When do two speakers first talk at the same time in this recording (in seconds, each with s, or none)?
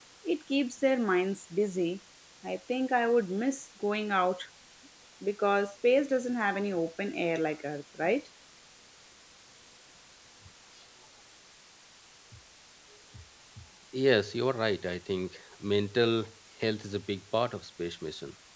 none